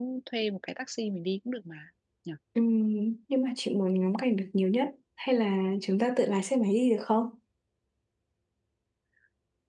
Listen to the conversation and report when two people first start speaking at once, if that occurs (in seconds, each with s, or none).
none